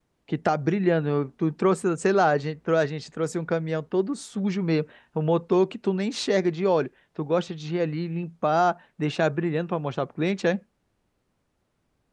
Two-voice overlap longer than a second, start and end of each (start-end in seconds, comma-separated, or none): none